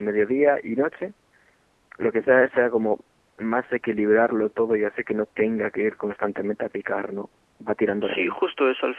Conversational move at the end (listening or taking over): taking over